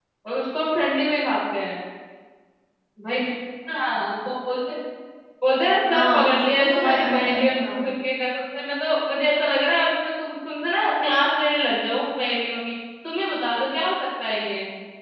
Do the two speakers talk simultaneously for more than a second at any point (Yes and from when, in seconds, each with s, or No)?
Yes, from 5.9 s